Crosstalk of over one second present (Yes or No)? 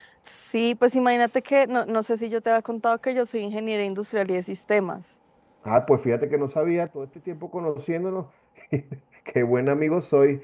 No